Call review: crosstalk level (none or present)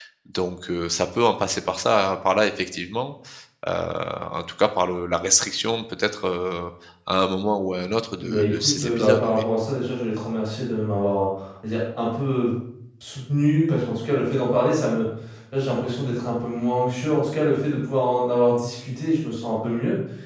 present